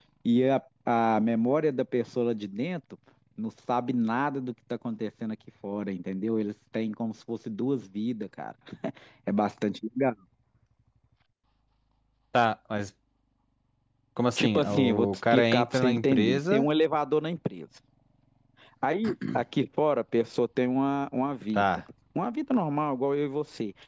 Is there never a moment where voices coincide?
No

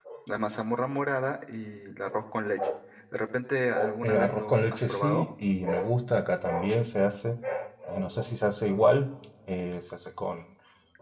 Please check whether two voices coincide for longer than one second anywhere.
Yes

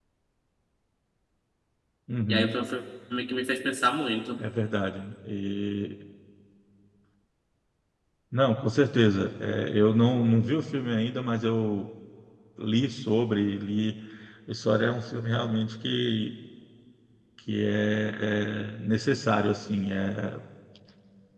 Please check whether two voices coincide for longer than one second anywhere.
No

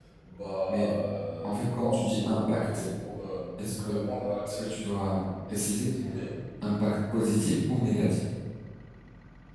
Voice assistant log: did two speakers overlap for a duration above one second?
Yes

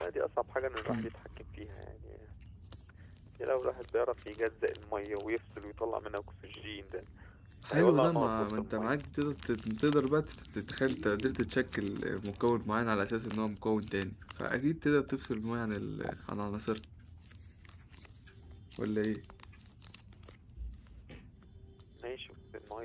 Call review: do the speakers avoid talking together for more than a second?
No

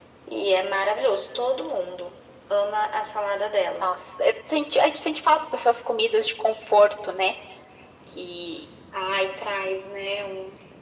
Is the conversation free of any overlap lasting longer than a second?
Yes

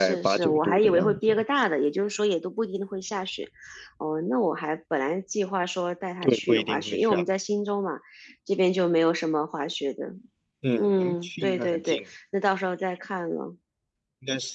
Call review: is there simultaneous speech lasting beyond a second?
Yes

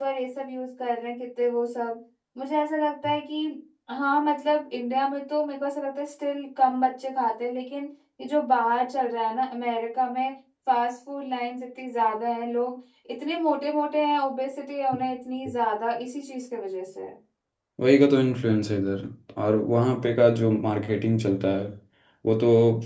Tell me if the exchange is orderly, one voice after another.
Yes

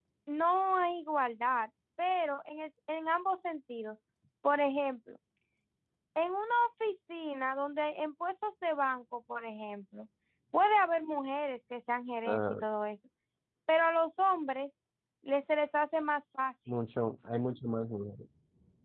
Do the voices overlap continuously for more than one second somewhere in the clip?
No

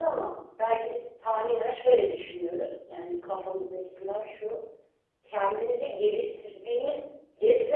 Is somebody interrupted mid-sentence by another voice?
No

